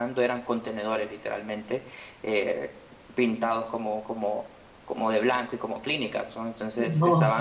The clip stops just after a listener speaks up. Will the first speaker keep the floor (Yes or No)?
Yes